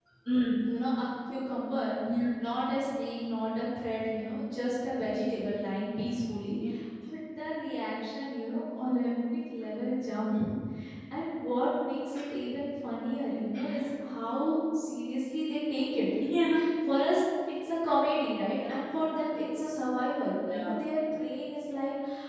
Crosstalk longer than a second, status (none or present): none